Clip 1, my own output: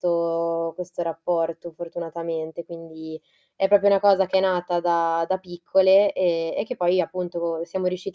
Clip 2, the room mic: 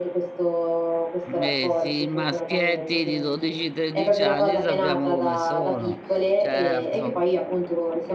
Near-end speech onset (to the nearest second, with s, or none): 1 s